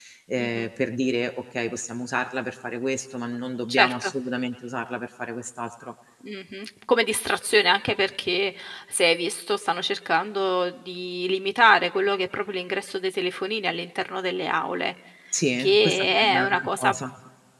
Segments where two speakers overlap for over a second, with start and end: 15.6-16.9

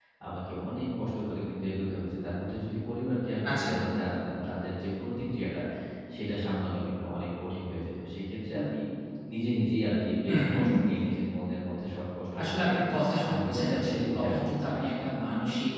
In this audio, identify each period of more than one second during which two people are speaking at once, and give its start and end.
13.2-15.1

